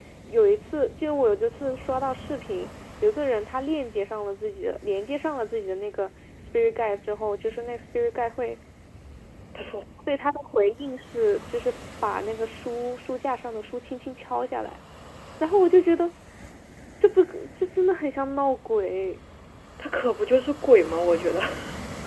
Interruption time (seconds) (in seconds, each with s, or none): none